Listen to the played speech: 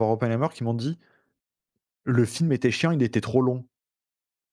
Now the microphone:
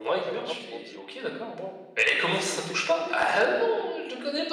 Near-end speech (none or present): present